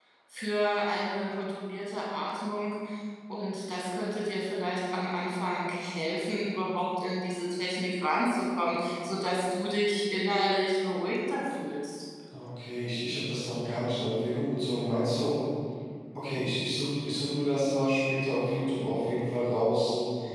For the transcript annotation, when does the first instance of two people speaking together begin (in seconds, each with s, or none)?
none